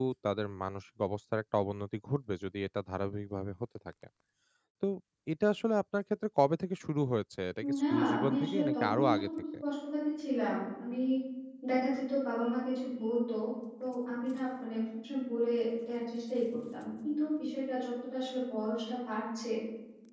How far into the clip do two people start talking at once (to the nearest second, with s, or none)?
8 s